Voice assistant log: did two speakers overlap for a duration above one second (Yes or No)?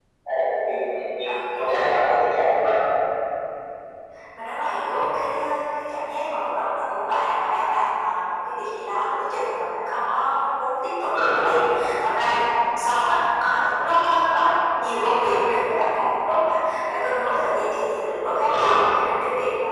No